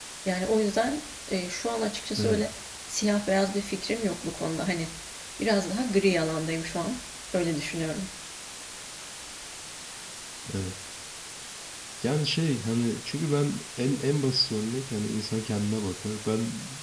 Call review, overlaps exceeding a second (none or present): none